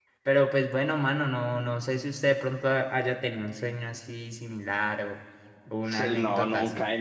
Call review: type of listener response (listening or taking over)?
taking over